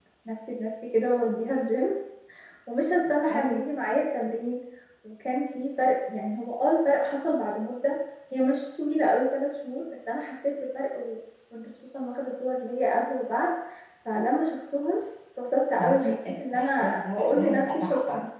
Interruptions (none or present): present